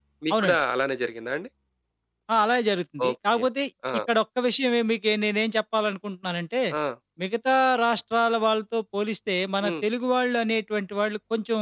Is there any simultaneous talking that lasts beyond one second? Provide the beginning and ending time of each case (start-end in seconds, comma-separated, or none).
none